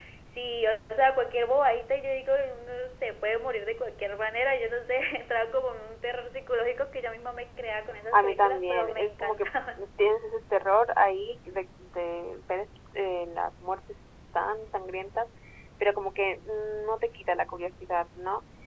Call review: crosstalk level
present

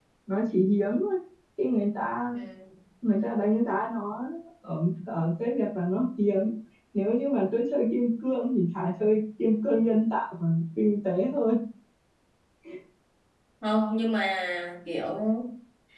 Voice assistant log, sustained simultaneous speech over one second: none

